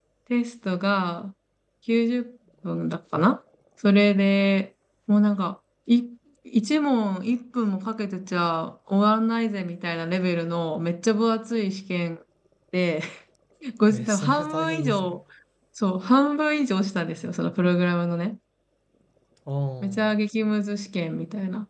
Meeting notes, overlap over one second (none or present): present